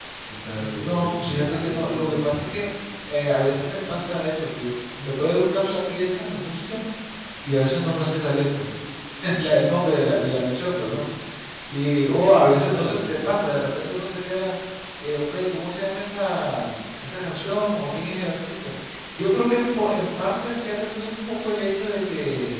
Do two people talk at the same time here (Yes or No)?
Yes